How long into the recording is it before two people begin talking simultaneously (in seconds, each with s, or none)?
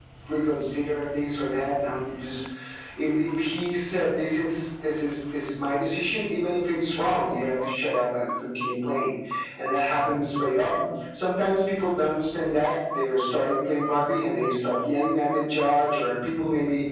none